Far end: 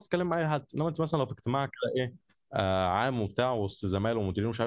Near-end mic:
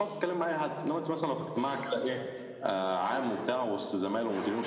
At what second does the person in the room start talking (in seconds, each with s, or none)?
none